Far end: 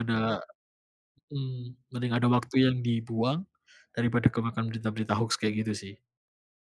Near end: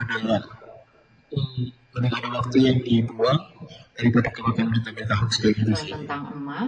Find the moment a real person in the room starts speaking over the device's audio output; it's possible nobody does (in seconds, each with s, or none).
5.7 s